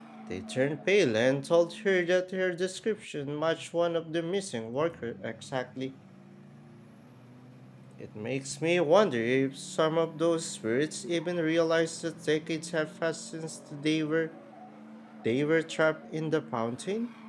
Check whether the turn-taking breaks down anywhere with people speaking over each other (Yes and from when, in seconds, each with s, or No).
No